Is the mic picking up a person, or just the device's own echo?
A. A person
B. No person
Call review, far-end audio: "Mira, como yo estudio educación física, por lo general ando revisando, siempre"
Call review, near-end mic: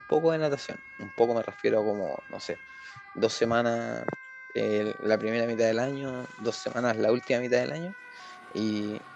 A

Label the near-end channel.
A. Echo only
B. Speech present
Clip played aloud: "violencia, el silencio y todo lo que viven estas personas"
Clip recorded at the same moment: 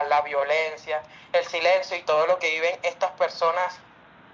A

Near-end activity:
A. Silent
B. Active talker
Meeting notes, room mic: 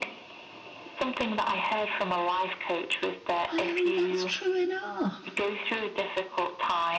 B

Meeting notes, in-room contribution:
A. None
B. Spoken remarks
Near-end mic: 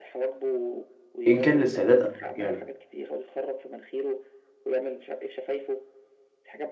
B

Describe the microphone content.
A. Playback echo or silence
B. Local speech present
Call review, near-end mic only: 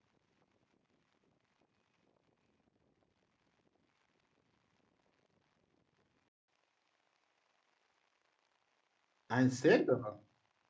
B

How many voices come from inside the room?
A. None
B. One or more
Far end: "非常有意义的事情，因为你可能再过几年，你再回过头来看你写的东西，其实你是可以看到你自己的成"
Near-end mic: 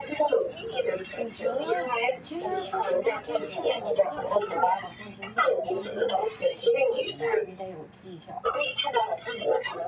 B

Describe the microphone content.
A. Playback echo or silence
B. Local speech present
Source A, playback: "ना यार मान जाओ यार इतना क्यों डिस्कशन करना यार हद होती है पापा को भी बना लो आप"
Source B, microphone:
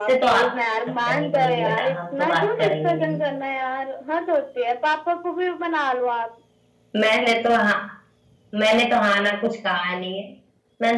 B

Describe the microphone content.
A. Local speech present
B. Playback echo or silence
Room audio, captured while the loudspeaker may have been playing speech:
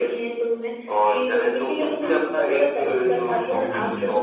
A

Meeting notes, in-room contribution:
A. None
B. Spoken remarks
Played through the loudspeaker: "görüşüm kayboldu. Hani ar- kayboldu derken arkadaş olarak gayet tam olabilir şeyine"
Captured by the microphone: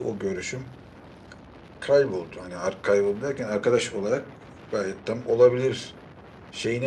A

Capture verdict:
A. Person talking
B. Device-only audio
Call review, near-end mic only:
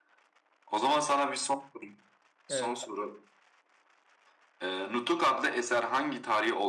A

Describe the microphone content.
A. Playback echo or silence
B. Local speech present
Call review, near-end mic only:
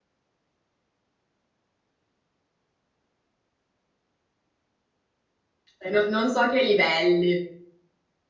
B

